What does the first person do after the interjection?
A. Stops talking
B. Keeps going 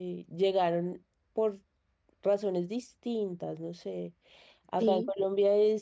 B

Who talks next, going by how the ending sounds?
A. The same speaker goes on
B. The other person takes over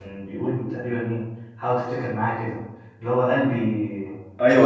B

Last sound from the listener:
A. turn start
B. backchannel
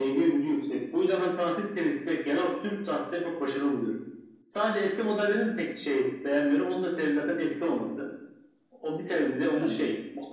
B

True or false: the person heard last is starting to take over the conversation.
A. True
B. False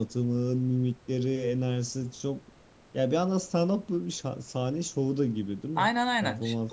A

